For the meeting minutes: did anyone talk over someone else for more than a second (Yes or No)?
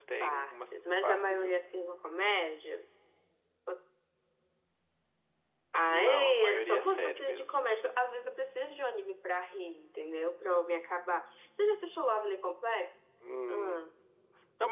Yes